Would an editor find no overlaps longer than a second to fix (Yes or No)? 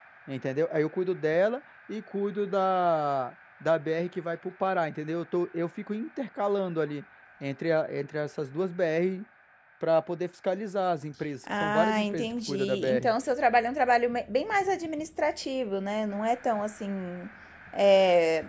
No